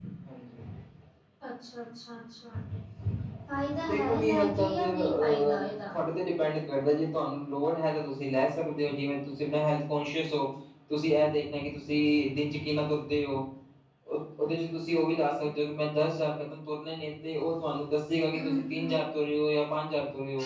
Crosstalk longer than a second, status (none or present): present